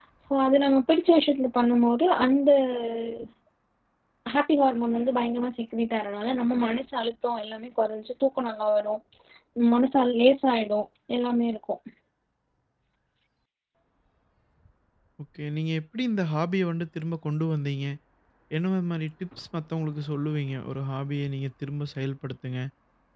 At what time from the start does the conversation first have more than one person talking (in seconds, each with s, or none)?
none